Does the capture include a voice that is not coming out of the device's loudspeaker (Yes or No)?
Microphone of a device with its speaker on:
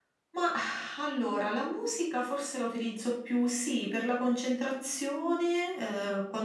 No